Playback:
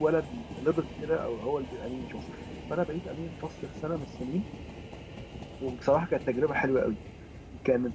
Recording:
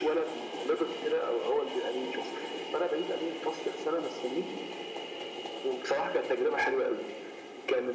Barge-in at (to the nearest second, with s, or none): none